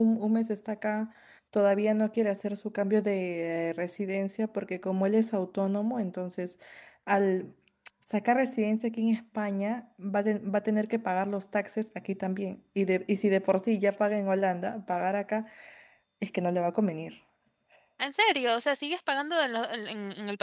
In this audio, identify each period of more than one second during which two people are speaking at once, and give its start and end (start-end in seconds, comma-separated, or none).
none